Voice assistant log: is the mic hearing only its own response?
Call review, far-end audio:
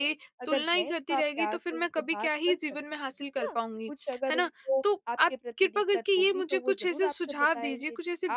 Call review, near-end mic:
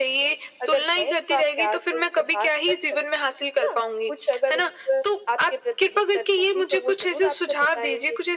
Yes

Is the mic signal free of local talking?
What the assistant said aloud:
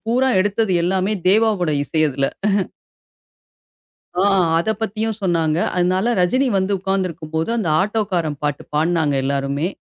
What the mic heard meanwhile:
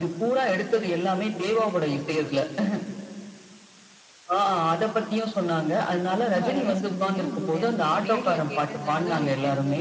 No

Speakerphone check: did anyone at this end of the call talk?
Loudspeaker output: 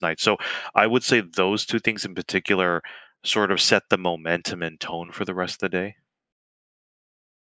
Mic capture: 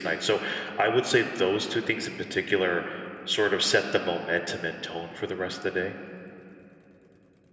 No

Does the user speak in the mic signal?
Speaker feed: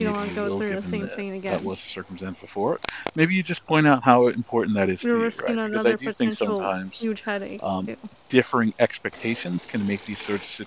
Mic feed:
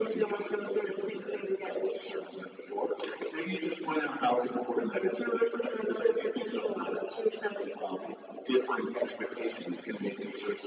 No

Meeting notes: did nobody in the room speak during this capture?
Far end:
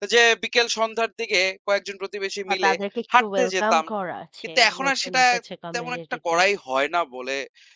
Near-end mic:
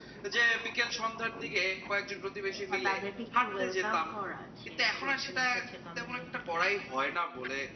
Yes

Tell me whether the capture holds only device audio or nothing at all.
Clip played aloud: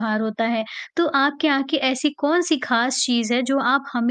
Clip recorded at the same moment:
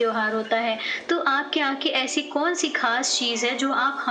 Yes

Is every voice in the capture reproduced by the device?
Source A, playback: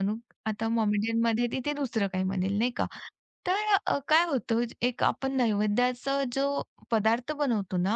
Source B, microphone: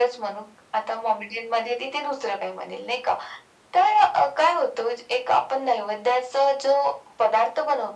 Yes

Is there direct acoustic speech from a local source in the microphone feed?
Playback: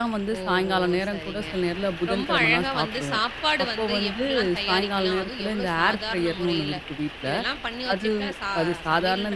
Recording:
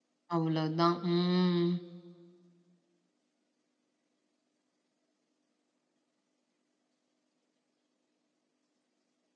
Yes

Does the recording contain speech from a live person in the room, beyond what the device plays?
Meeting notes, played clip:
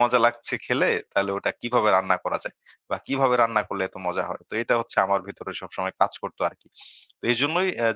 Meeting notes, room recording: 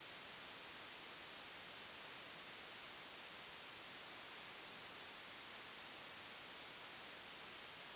No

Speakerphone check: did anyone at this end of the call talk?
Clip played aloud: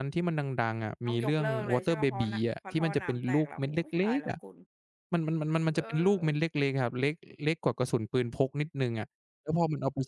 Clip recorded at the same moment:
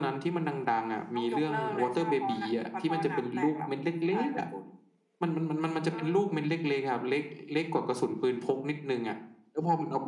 No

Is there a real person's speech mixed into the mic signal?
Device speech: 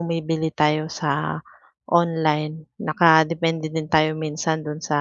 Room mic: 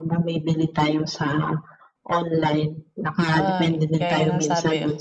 Yes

